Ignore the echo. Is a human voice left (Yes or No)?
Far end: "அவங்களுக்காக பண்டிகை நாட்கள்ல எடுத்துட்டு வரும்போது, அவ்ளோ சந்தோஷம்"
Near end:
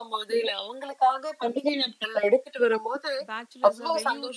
Yes